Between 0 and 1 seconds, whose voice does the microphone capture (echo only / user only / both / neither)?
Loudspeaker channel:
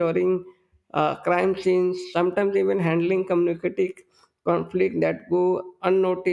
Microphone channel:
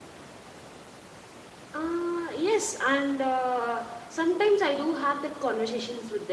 neither